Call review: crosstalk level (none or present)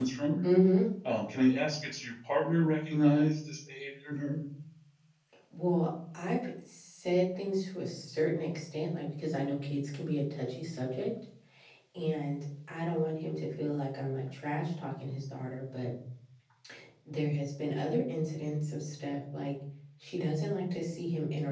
none